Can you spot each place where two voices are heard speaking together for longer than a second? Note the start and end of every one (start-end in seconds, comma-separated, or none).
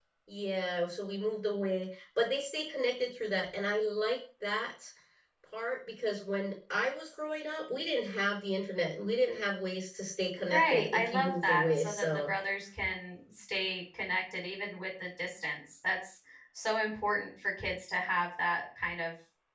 10.4-12.3